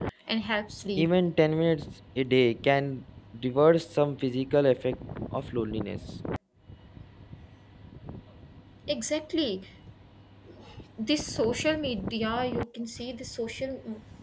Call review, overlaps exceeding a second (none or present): none